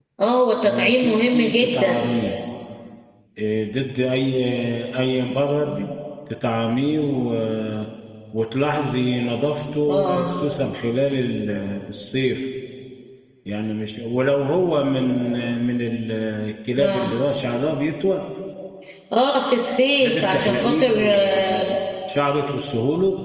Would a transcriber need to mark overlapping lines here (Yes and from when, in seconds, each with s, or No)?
Yes, from 0.7 s